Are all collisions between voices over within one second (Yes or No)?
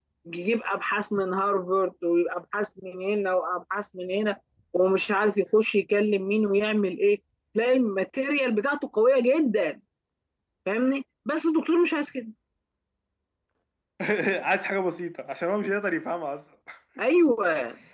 Yes